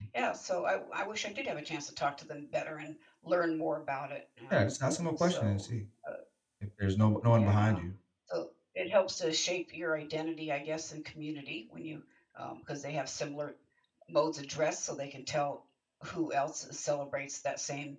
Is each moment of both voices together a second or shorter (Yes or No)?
Yes